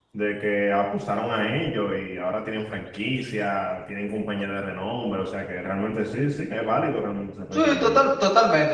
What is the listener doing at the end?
taking over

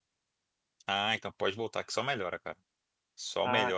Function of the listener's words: listening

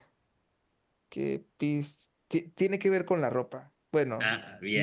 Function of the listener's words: listening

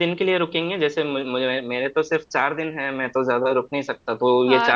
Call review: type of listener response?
taking over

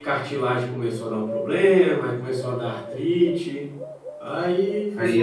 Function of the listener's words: taking over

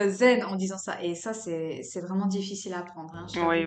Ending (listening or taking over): taking over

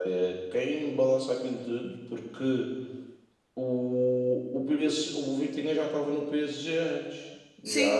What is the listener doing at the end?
taking over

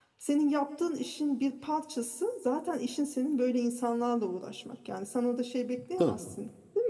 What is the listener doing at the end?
listening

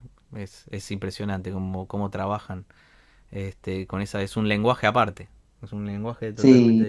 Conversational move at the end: taking over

